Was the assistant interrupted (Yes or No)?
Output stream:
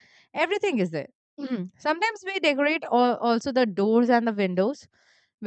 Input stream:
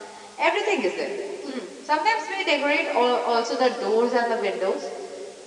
No